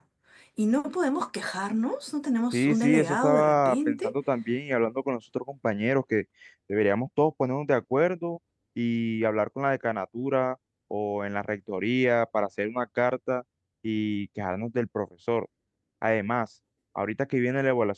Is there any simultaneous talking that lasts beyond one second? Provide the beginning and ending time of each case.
2.5-4.1

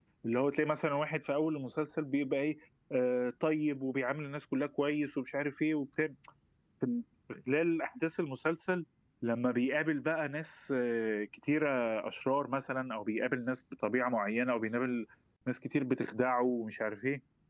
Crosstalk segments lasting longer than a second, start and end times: none

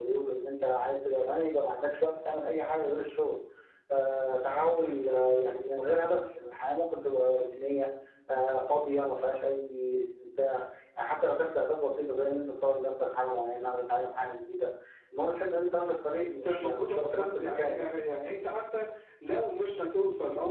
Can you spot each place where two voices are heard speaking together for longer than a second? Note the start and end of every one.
16.2-18.0

